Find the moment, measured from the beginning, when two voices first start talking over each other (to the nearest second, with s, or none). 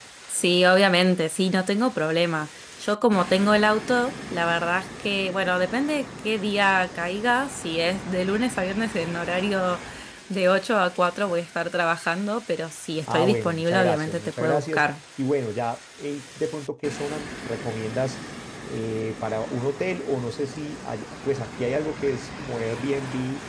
13 s